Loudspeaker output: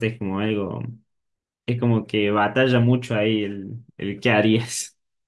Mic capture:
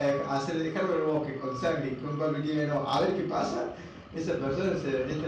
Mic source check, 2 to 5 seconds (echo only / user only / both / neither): user only